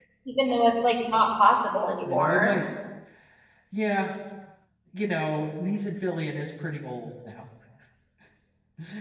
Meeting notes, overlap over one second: none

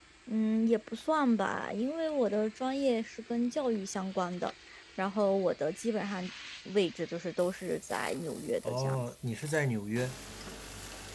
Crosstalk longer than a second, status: none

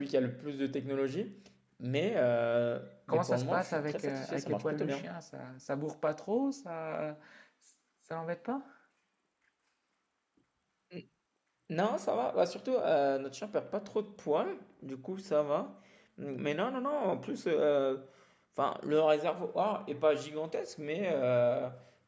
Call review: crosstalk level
present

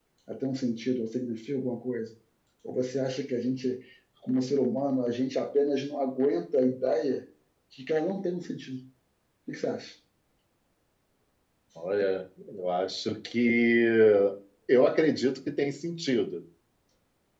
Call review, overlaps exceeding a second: none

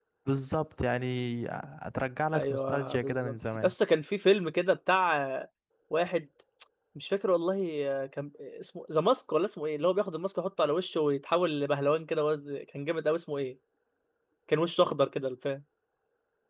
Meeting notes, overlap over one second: present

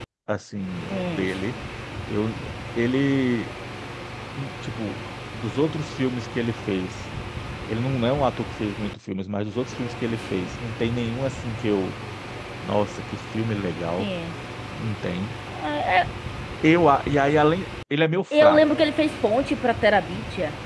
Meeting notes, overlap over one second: none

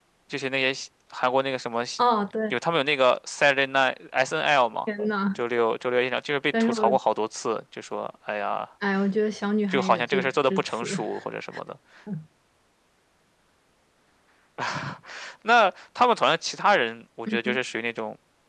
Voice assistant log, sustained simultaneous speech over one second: present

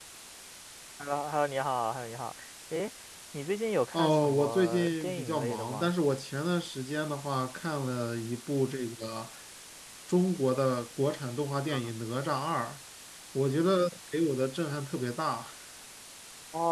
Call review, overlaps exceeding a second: present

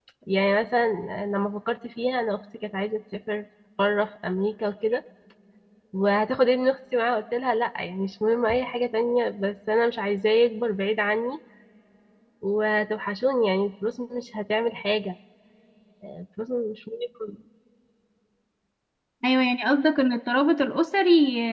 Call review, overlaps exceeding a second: none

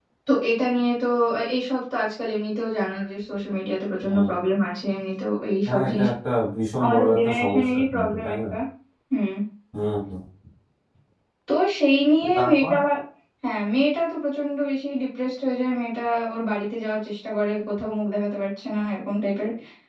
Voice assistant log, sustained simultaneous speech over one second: present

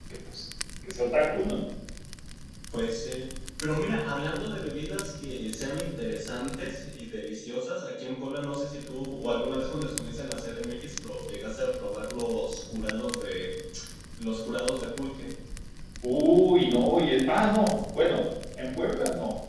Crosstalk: none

